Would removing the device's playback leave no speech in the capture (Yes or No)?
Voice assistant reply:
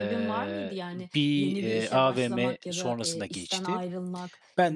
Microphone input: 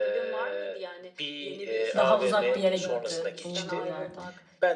No